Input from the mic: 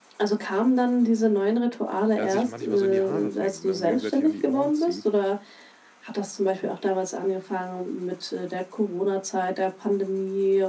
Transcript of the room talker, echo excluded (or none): ja, sich manchmal so in die Haare fängt, ne, und gegenseitig an die Ohren zieht.